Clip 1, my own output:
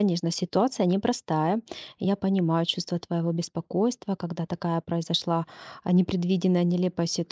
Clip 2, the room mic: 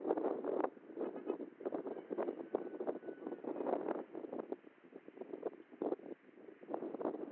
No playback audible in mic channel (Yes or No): Yes